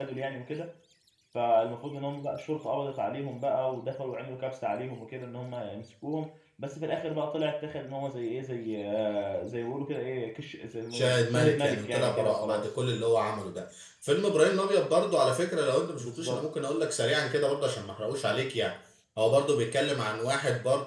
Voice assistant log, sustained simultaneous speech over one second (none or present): present